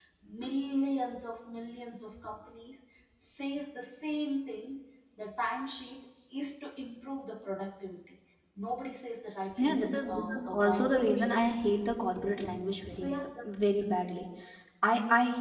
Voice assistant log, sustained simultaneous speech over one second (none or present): present